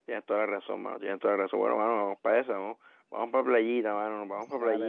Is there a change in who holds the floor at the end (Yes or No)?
Yes